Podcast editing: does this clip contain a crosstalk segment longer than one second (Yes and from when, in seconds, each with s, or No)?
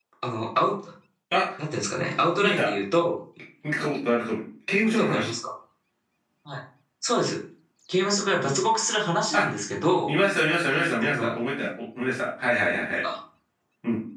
No